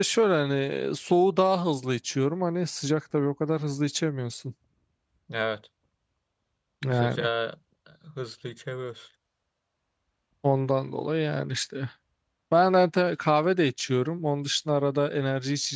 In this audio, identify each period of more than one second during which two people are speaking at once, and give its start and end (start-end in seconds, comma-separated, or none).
none